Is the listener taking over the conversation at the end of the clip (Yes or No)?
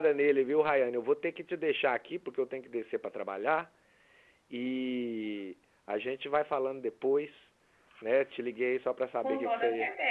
Yes